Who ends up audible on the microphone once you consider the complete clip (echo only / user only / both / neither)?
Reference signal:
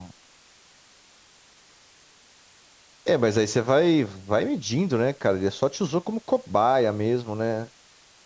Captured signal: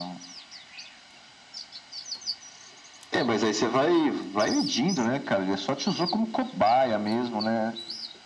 echo only